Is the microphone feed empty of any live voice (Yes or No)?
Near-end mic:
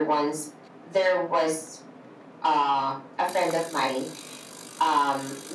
Yes